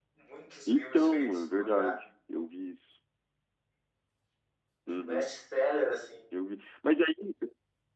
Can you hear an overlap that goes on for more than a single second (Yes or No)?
Yes